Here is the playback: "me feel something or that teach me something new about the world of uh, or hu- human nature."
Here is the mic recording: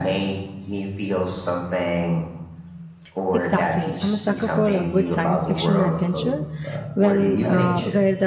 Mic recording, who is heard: both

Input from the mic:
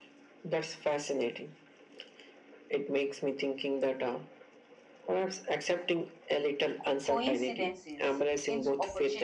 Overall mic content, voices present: both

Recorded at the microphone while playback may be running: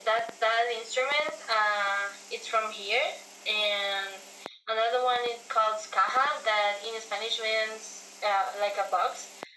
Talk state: echo only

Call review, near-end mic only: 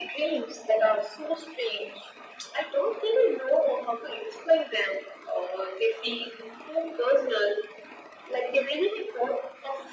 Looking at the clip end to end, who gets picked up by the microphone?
echo only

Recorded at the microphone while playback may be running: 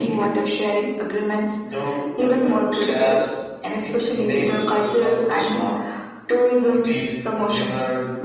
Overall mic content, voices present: echo only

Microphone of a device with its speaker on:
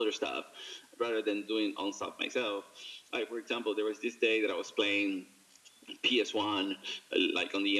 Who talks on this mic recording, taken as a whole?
echo only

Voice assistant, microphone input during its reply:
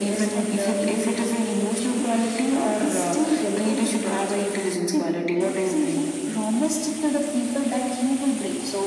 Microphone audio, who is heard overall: echo only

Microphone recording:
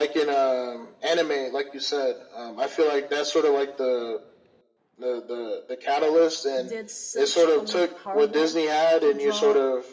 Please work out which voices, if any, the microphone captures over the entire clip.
both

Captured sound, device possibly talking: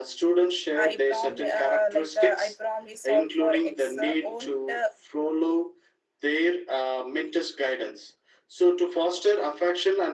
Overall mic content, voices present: both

